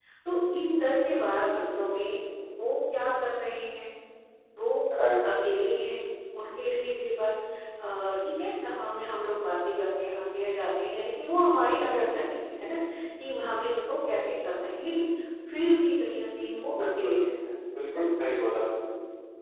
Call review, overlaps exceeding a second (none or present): none